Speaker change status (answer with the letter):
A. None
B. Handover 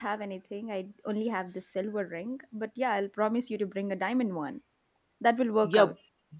B